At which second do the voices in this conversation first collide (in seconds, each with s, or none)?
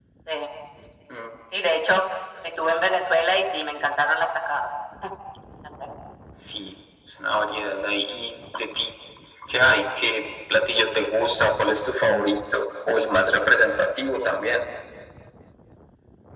none